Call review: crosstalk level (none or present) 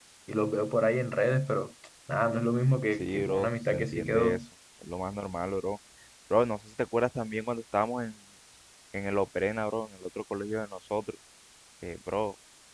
present